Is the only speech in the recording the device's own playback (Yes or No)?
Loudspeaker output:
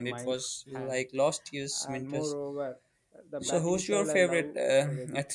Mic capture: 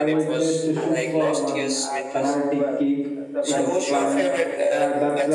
No